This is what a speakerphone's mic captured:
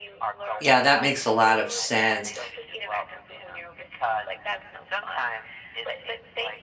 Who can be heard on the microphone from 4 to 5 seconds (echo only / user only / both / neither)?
echo only